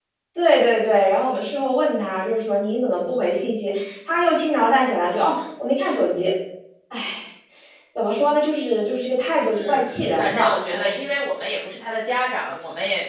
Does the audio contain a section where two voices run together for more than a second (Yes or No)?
Yes